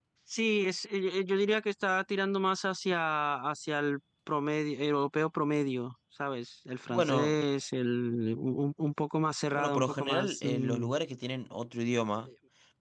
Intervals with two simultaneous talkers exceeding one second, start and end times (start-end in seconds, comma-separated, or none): 9.5-10.9